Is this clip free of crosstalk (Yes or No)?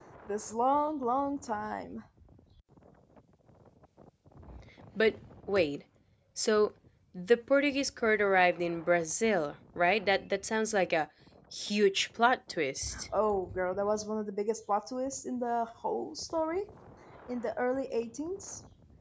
Yes